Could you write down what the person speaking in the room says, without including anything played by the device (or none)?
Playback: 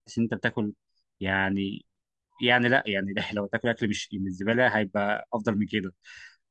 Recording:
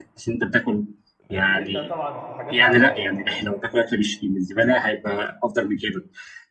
ماشي الا طبعا في حاجات معينه يعني